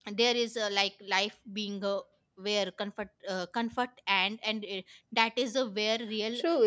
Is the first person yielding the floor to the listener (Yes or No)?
Yes